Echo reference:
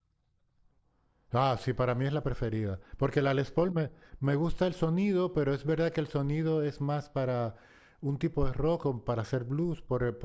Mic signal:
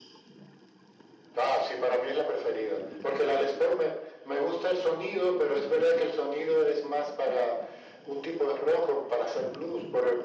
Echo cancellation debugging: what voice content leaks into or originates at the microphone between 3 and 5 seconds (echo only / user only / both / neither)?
echo only